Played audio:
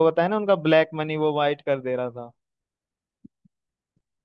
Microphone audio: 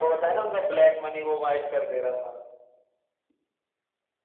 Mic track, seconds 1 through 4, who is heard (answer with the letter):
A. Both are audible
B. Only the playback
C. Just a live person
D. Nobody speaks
B